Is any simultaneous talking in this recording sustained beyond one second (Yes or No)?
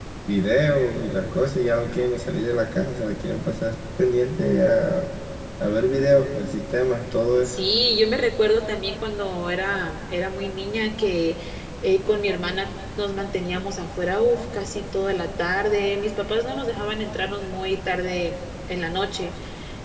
No